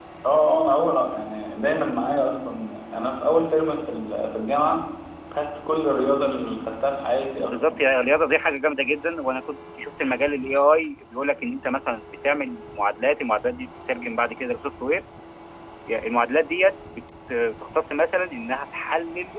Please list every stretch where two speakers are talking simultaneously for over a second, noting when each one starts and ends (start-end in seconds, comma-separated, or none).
none